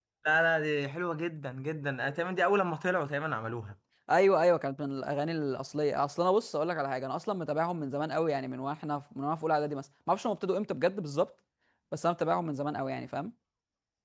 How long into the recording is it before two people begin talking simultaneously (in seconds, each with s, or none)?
none